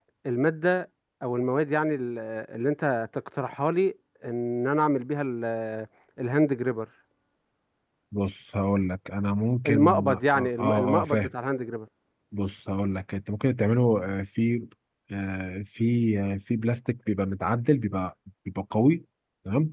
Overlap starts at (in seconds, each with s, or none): 9.6 s